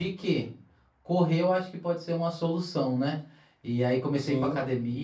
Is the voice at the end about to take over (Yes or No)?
No